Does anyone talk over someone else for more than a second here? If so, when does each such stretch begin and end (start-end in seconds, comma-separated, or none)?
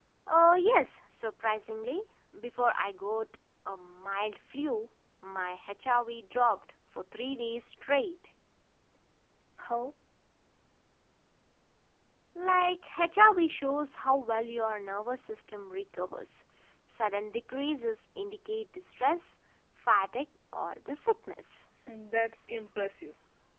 none